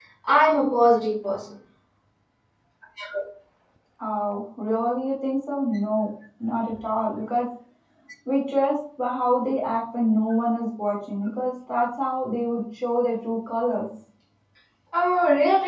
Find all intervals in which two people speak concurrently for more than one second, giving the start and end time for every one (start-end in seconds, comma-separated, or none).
none